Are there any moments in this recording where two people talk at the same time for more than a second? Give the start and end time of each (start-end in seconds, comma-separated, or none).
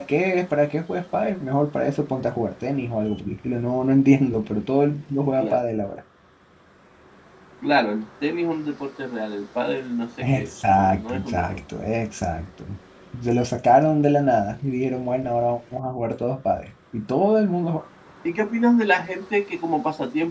10.2-11.6